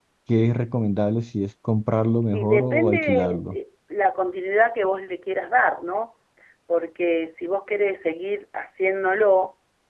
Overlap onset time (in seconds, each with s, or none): 2.3 s